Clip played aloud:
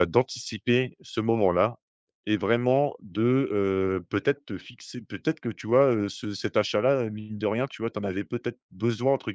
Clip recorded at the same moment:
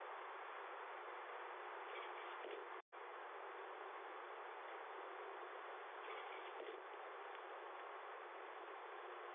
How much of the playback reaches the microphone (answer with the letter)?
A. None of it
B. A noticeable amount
A